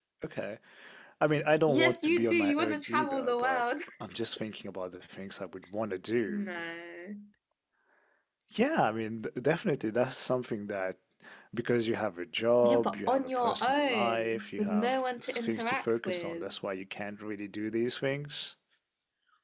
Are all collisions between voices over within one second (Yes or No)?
No